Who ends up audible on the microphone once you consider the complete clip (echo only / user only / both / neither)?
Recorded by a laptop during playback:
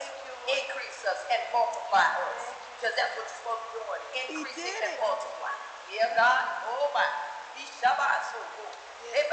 both